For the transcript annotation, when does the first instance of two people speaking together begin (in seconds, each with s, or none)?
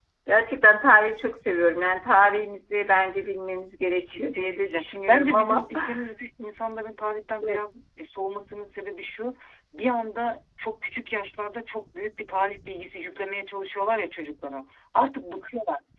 4.1 s